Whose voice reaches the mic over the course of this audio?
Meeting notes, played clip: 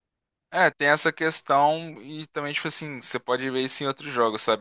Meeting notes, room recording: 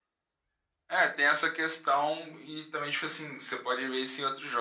echo only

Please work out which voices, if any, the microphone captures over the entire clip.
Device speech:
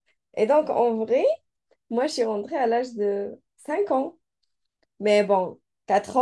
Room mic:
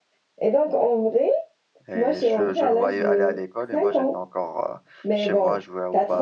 both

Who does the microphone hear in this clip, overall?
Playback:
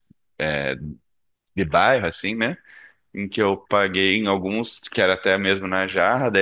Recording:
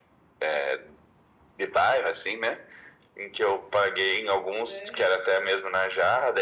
both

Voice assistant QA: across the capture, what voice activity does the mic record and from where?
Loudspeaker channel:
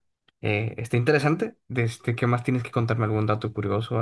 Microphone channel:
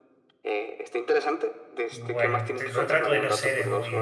both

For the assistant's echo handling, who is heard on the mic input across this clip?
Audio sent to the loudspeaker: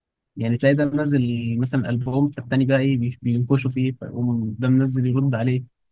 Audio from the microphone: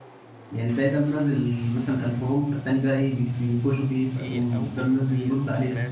both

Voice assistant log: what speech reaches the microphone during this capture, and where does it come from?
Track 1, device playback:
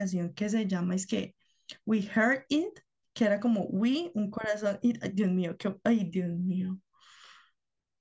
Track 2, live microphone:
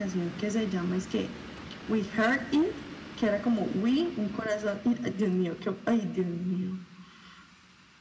echo only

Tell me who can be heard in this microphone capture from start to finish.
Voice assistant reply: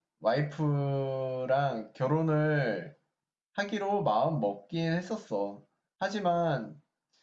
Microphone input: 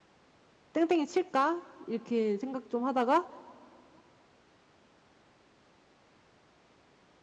user only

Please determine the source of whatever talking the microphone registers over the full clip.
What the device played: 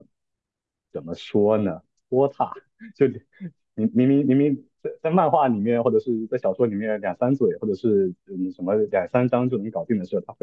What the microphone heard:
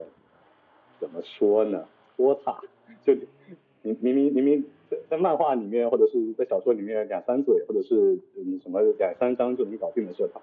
echo only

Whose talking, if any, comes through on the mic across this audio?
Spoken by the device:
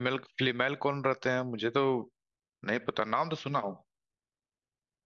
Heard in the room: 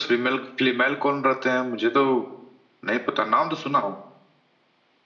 echo only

